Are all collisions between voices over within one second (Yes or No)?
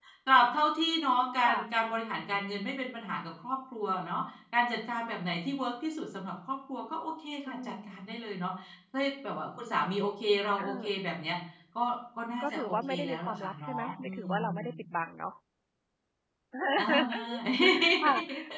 No